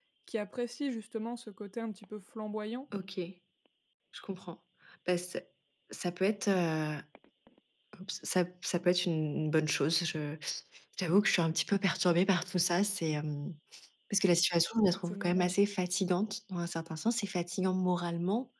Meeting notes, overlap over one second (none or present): none